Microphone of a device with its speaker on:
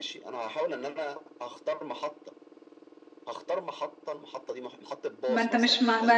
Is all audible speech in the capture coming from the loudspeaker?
No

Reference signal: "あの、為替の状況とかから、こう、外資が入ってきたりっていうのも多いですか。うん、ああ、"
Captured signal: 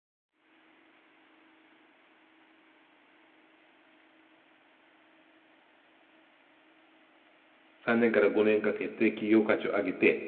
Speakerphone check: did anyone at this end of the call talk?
Yes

